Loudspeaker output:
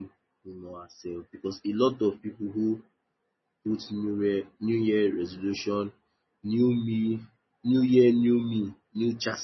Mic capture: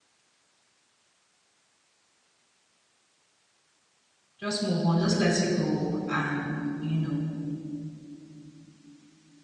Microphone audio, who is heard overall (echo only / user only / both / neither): user only